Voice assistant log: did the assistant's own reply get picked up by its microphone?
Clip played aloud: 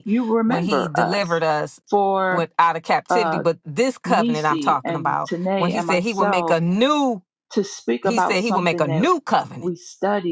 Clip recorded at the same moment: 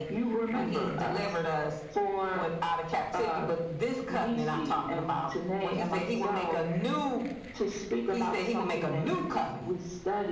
Yes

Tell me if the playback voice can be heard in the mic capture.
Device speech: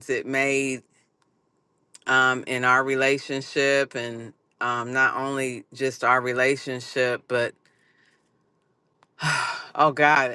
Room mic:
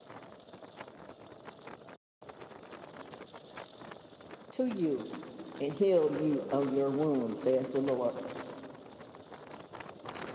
No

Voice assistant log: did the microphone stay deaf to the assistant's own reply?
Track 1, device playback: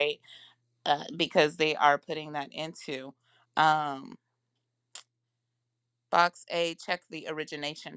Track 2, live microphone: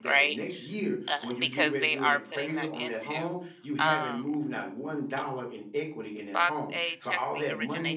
No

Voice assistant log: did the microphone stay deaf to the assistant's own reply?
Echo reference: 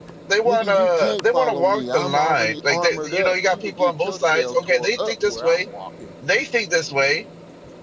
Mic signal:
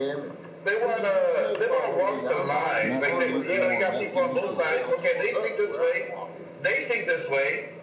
No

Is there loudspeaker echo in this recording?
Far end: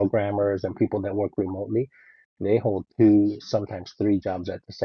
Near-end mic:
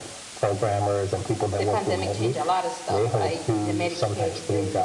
Yes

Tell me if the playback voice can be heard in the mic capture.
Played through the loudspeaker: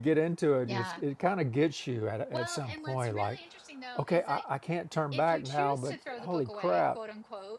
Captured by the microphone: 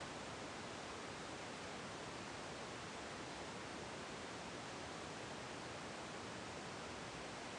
No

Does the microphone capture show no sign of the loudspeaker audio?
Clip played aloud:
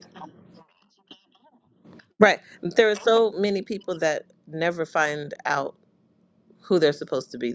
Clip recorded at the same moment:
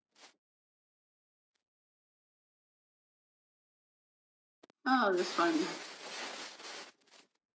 Yes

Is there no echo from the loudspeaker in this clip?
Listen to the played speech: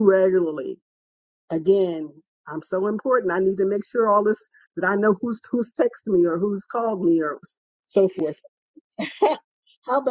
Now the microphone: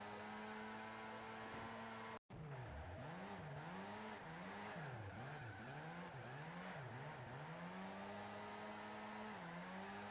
Yes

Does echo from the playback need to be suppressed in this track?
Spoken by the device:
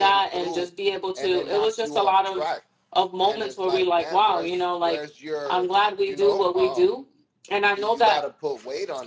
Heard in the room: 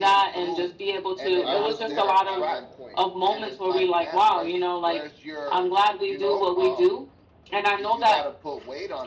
Yes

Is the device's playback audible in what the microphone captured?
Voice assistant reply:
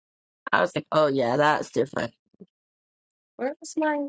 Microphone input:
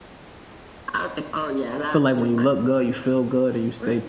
Yes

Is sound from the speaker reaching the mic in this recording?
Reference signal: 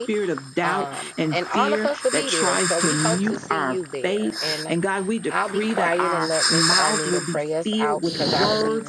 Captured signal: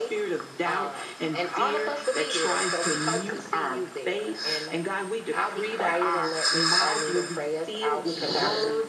Yes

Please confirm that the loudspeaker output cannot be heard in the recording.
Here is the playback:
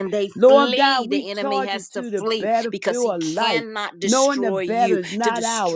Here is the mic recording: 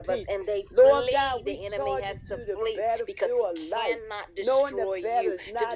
No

